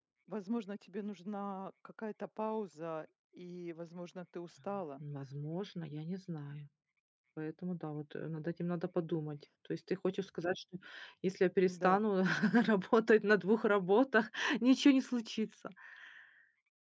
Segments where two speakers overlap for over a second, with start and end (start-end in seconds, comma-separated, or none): none